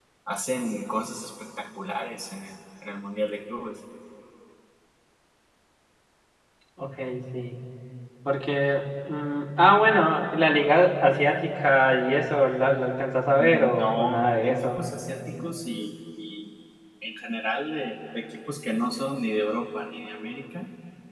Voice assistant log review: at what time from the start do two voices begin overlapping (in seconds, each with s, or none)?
13.4 s